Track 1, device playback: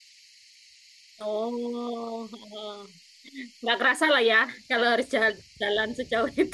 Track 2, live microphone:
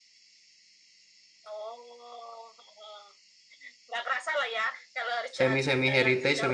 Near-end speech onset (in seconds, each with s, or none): 5.4 s